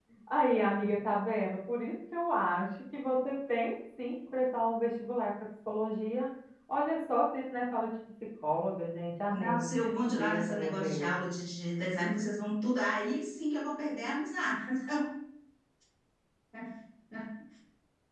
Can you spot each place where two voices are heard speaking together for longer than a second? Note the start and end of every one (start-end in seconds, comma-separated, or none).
9.3-11.1